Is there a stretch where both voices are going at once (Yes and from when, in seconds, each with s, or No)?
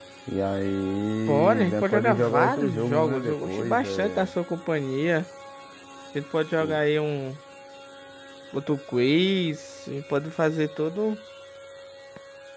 Yes, from 1.3 s